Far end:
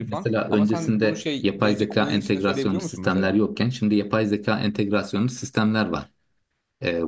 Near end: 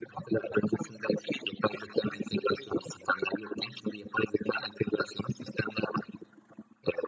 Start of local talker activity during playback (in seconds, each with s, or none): none